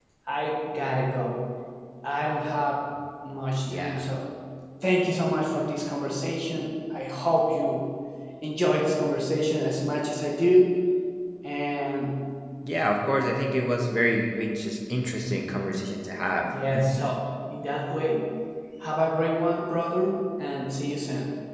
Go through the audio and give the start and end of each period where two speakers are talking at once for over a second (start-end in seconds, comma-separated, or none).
none